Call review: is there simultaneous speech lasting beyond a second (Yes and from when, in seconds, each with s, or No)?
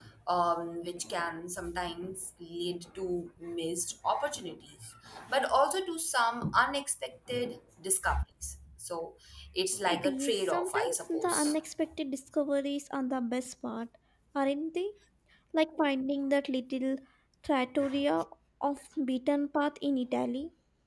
Yes, from 9.9 s